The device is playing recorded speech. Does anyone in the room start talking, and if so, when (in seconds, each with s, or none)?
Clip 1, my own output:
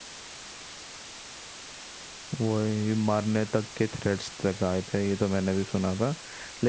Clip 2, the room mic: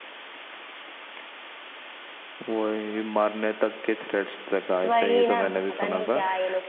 4.8 s